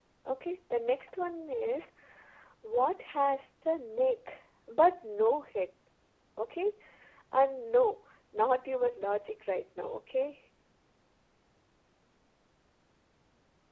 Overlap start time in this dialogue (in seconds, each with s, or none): none